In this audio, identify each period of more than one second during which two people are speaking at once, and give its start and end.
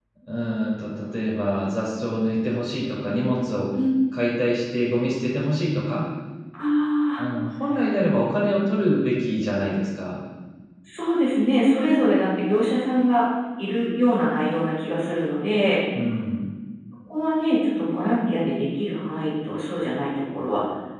none

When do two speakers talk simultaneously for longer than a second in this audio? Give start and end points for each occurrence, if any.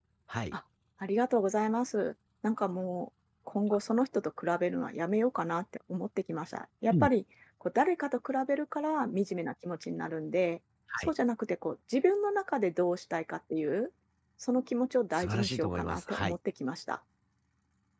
15.1-16.4

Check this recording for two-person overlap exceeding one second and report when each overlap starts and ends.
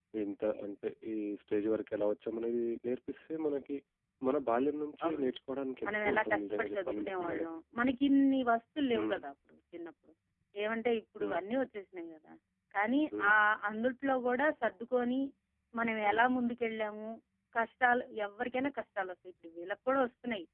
5.8-7.5

